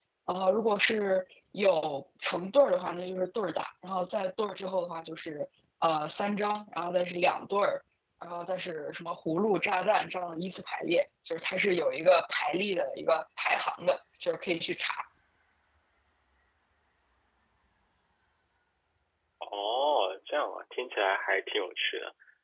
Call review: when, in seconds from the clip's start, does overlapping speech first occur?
none

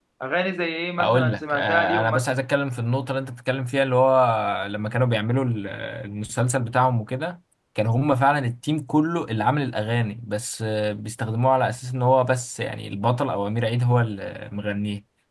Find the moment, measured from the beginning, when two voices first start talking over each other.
1.0 s

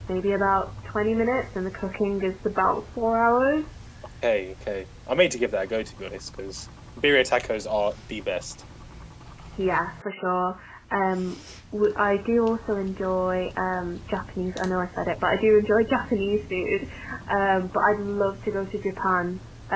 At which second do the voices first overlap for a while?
none

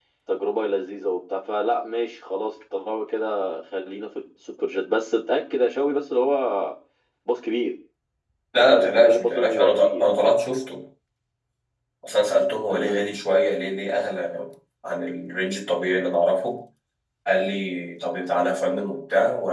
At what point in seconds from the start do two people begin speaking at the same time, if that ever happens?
8.6 s

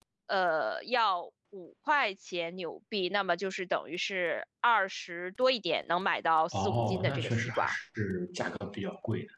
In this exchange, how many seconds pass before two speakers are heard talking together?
6.5 s

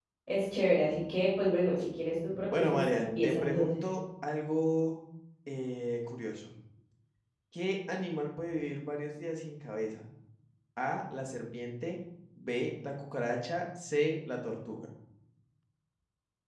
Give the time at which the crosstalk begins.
2.5 s

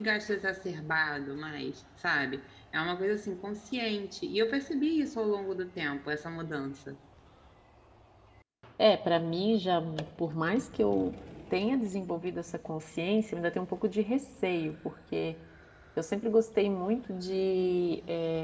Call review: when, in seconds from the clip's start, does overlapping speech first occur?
none

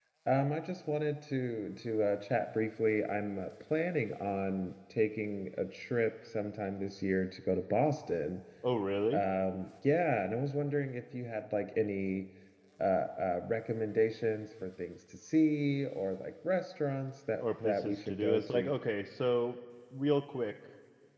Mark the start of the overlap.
17.3 s

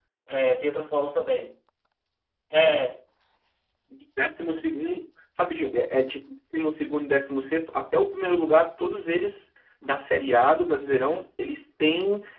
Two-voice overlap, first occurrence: none

